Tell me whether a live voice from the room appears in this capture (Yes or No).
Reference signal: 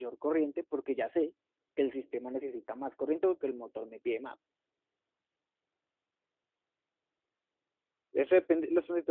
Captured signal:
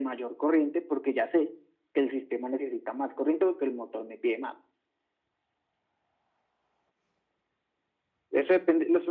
No